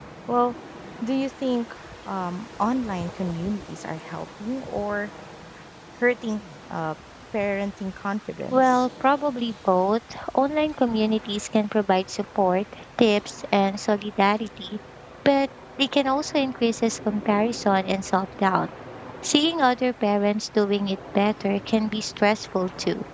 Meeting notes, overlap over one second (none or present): none